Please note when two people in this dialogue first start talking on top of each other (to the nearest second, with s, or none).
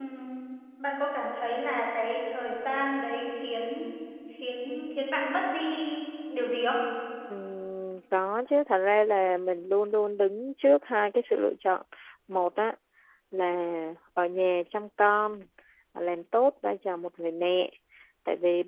none